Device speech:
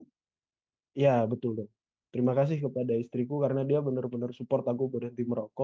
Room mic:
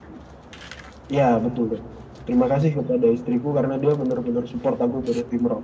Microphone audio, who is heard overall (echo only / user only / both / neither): echo only